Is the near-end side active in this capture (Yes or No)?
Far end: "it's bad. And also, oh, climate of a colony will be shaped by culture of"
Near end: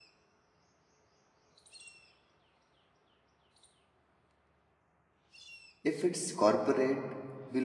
Yes